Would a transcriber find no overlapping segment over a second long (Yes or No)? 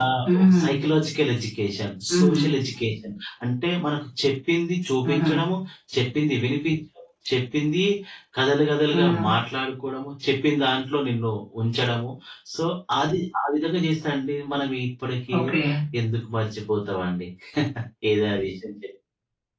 Yes